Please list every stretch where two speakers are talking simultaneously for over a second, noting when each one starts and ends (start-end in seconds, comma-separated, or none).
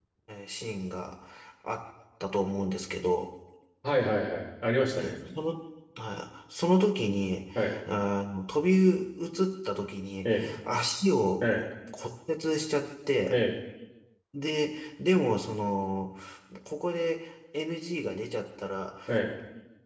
none